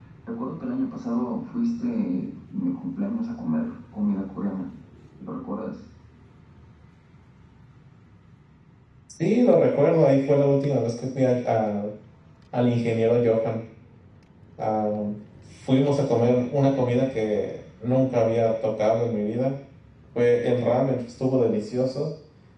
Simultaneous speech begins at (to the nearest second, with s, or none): none